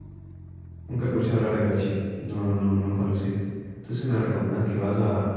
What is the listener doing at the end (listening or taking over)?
listening